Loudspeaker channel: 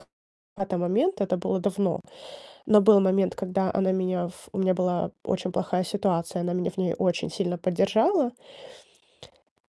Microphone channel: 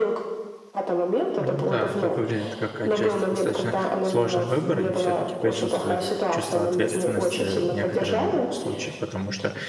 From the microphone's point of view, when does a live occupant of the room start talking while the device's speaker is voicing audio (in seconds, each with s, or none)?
1.4 s